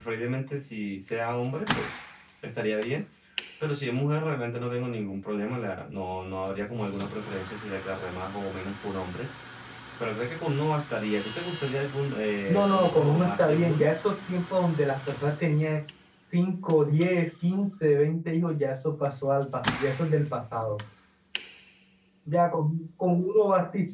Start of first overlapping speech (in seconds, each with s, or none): 12.5 s